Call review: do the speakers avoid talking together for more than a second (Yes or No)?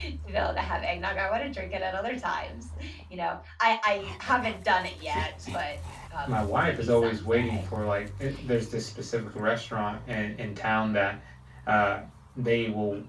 No